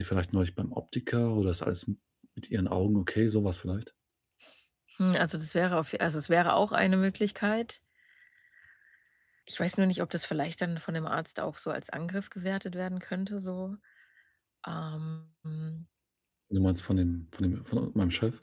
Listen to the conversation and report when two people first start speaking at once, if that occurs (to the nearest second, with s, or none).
none